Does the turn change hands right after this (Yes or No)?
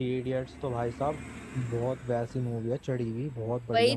Yes